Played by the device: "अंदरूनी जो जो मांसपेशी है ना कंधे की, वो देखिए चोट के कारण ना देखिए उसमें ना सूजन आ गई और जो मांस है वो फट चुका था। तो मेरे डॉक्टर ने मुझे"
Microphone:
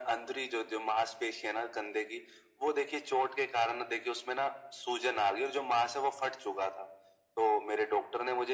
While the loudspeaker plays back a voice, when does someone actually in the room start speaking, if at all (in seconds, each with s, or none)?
none